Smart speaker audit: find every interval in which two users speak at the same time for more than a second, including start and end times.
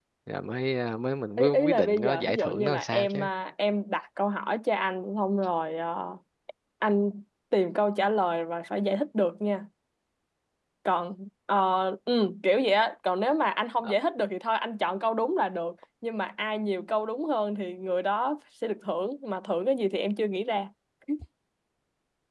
1.4-3.3

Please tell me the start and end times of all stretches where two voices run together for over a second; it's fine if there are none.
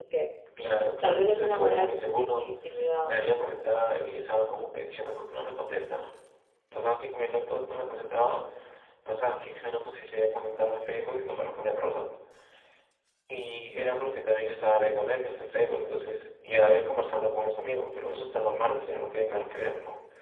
1.0-2.5

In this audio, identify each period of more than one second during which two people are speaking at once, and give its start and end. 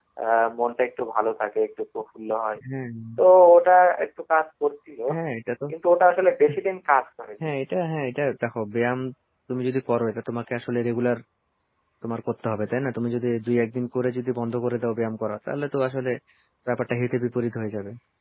none

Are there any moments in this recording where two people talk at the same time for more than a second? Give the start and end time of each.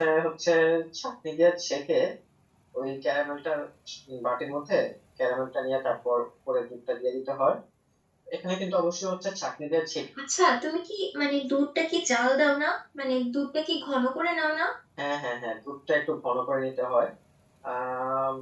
none

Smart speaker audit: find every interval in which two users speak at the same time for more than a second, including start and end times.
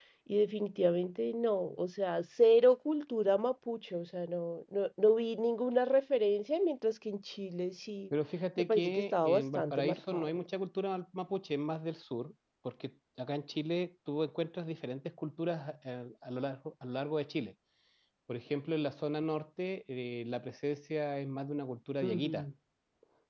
8.6-10.4

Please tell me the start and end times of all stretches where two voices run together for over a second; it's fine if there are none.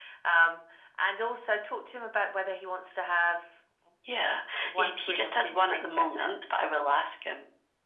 4.8-6.3

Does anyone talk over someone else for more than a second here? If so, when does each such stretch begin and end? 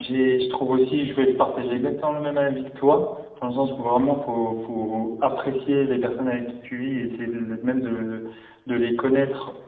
none

